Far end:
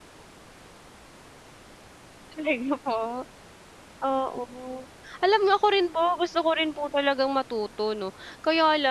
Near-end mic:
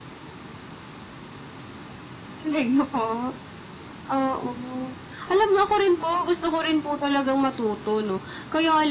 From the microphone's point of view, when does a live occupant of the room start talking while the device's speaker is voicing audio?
none

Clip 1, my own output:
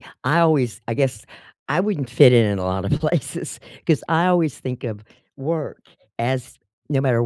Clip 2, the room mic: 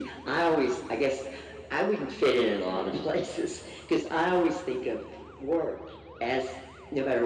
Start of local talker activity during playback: none

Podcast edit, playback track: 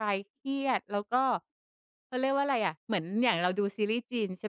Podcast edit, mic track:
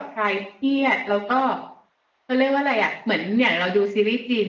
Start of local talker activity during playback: none

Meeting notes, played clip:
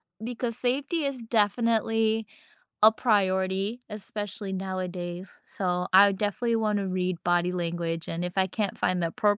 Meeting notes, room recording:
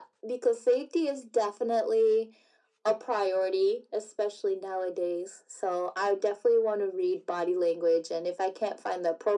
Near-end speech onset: none

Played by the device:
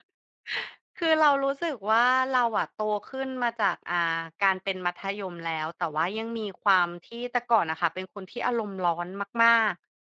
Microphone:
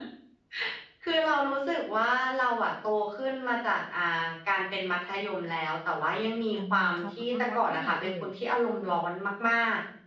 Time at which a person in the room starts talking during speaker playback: 7 s

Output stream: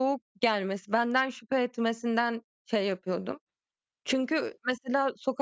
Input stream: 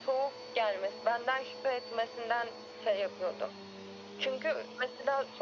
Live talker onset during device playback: none

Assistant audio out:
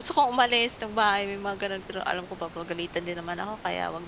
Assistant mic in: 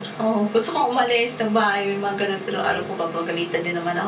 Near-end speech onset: 3 s

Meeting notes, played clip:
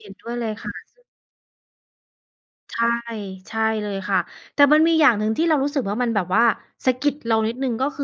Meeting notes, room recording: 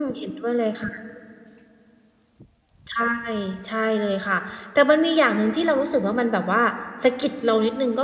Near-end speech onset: none

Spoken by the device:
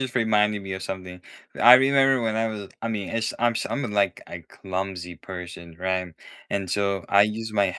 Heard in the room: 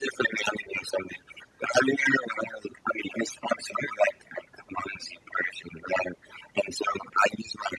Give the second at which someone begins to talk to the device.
none

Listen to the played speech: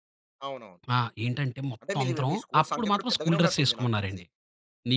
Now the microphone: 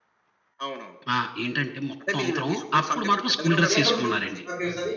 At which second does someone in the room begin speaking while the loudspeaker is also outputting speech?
4 s

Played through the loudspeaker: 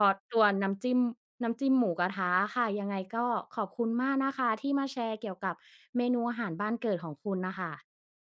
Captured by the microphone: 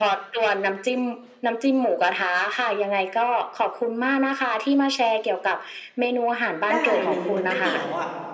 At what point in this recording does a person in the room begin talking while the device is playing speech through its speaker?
7 s

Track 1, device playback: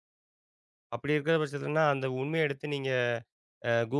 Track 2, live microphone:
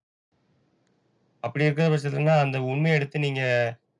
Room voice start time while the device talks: none

